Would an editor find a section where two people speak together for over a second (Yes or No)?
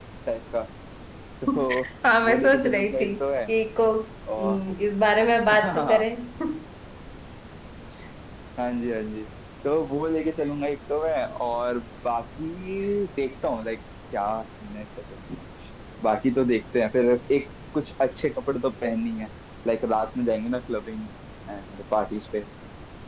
Yes